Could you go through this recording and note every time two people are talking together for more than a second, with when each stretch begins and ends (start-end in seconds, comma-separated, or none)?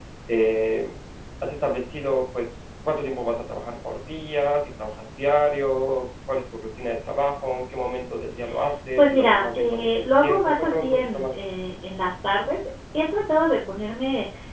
9.0-11.4